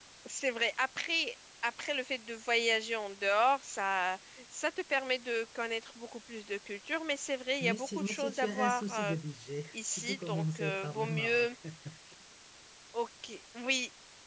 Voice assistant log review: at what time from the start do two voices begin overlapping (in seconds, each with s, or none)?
7.6 s